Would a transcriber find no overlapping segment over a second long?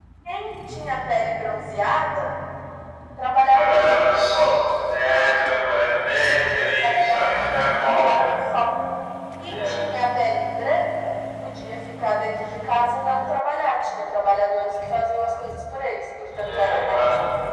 No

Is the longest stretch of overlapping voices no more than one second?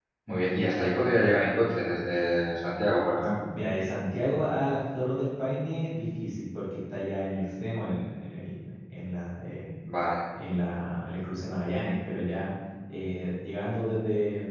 Yes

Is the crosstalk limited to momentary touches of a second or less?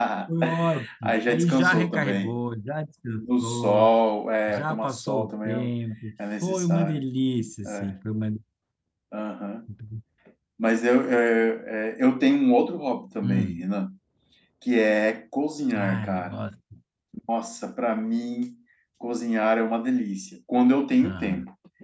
No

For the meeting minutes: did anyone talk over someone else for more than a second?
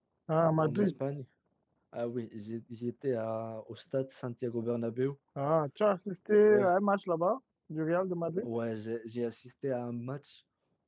No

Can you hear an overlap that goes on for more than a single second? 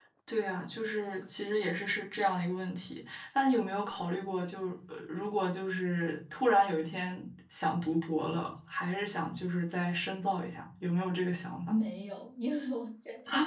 No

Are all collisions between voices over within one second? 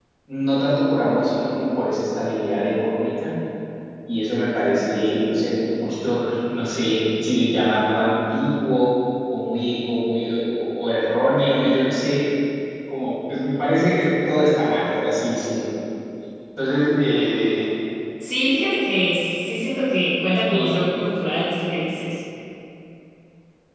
Yes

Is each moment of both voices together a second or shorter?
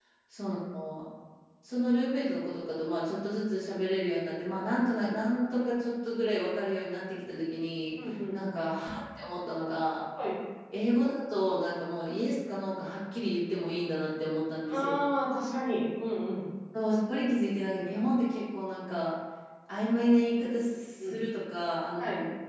Yes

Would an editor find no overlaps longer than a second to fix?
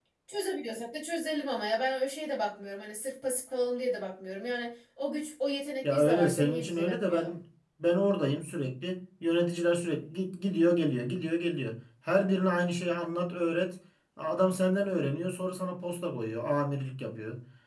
No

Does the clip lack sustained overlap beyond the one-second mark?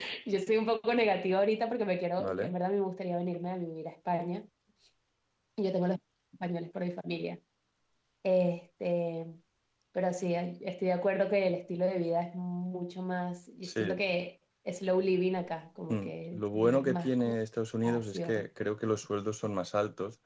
No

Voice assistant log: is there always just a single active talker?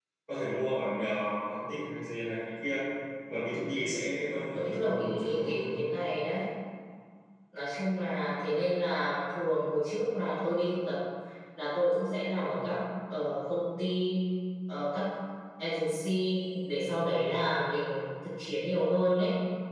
No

